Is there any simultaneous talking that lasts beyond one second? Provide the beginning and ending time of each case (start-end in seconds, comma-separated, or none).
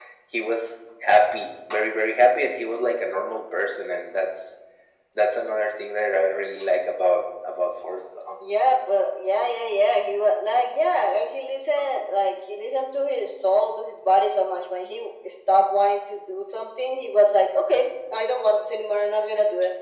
none